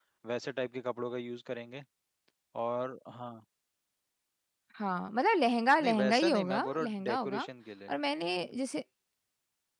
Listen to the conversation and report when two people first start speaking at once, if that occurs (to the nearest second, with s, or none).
6 s